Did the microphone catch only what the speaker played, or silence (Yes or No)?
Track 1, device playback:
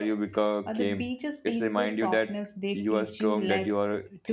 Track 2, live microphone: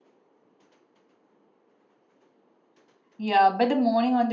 No